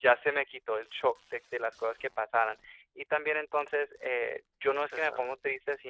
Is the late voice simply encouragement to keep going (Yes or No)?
Yes